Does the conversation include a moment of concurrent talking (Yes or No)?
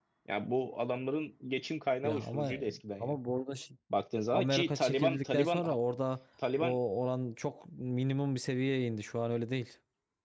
Yes